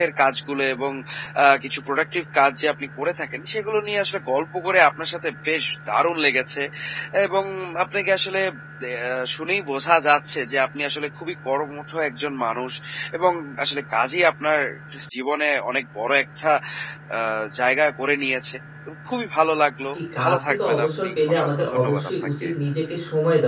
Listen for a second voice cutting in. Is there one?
Yes, from 19.9 s

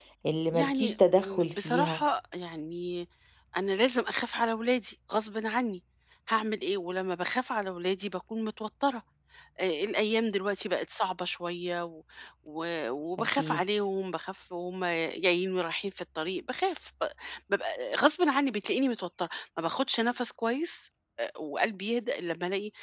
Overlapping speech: Yes, from 0.5 s

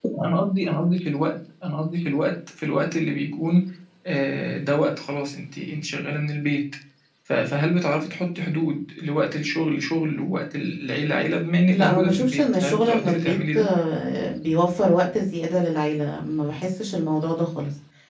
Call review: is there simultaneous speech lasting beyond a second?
Yes, from 11.7 s

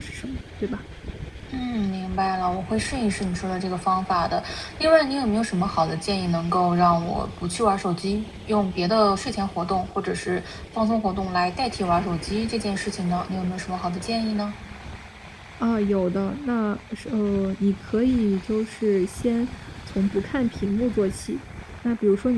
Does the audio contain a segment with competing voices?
No

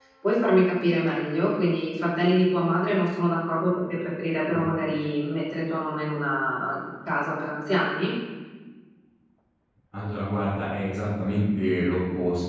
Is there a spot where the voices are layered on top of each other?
No

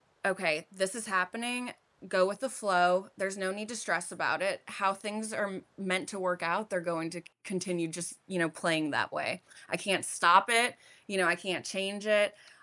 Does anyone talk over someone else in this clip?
No

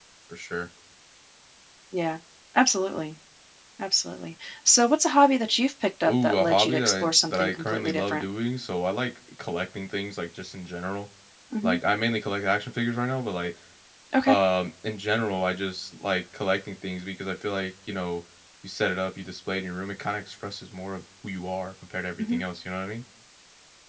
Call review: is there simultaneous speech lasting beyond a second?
Yes, from 6.1 s

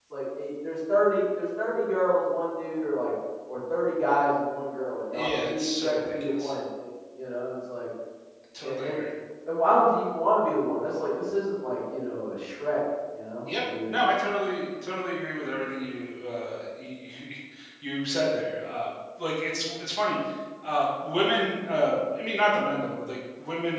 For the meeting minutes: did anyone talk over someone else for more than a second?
Yes, from 5.1 s

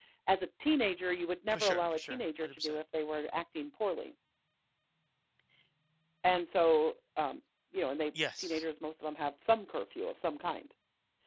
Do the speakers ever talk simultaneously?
Yes, from 1.5 s

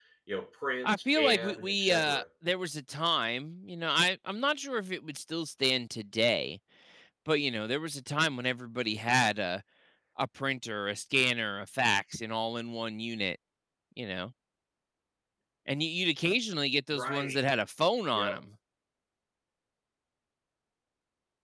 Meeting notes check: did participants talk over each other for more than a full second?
Yes, from 0.8 s

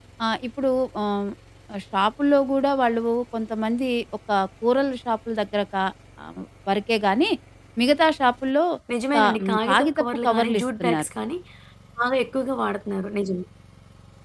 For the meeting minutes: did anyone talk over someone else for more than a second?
Yes, from 9.2 s

